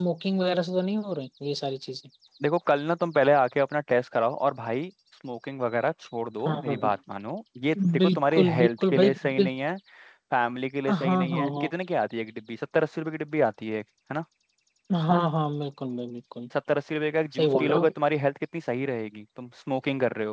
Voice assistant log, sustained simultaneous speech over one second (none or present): present